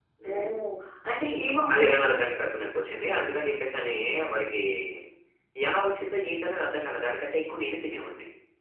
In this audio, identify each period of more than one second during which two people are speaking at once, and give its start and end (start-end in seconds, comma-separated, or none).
none